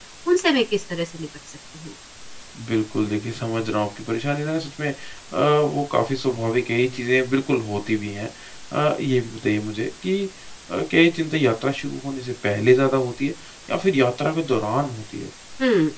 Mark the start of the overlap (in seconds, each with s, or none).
none